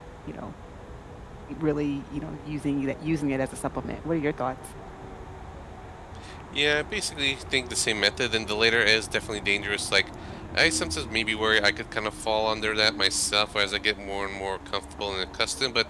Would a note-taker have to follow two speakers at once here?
No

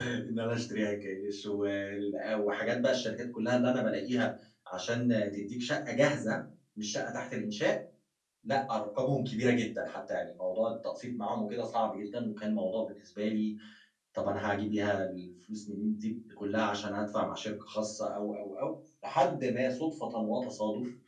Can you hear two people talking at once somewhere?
No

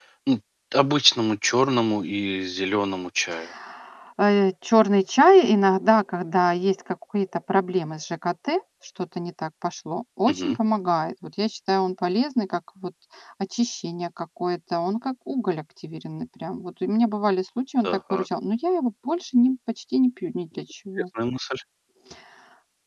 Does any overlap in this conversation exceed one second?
No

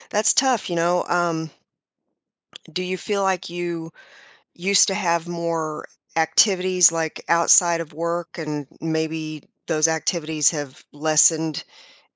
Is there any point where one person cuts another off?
No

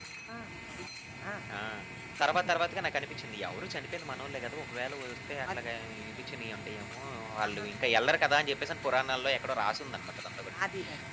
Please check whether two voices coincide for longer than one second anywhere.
No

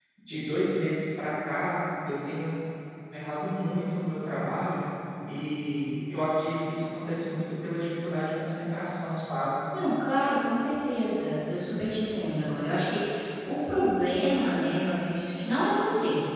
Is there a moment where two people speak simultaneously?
No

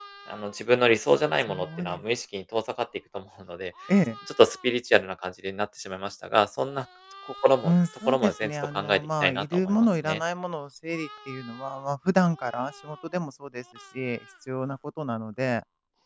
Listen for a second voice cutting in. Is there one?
Yes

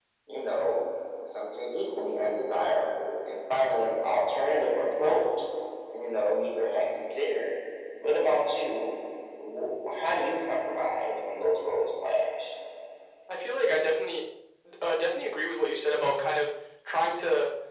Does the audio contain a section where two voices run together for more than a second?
No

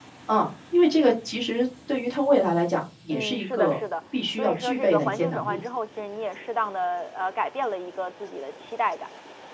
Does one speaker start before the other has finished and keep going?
Yes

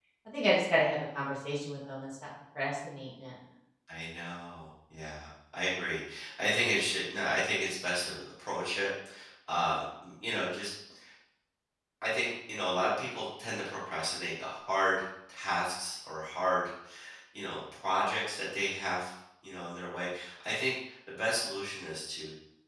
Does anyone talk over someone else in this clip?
No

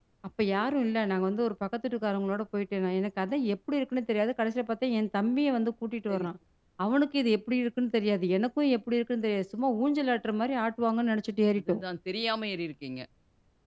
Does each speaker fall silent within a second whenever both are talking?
Yes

